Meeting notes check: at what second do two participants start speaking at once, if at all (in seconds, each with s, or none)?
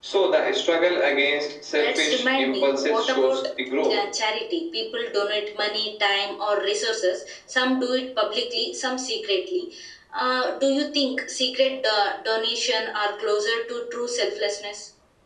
1.7 s